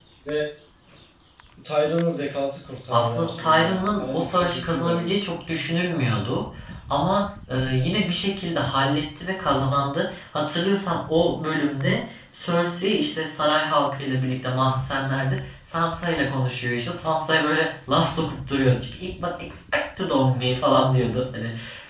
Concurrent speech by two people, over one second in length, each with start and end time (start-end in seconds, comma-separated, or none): 2.9-5.1